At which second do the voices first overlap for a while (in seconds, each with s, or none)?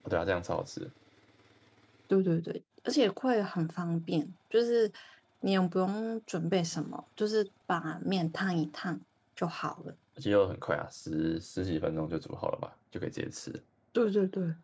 none